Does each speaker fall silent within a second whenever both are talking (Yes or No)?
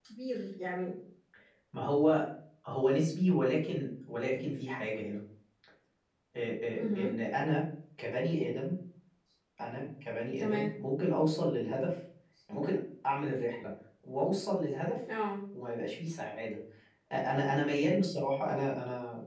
Yes